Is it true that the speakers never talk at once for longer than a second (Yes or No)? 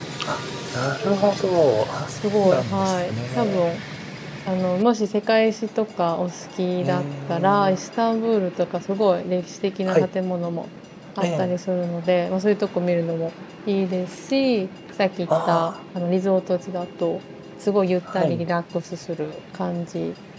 No